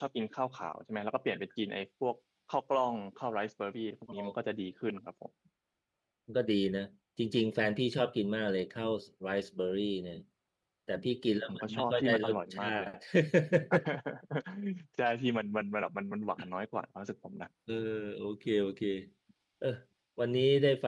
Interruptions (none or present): present